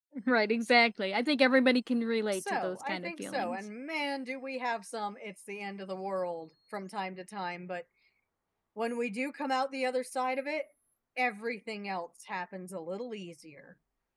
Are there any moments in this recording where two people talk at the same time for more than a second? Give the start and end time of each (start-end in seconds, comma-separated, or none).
2.3-3.6